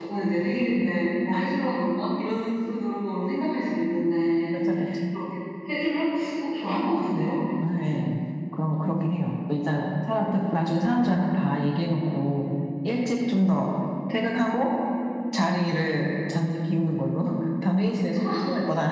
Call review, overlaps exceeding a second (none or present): none